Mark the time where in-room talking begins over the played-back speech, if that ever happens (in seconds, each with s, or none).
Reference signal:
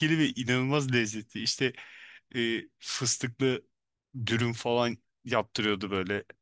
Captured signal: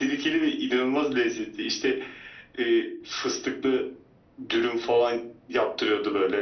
none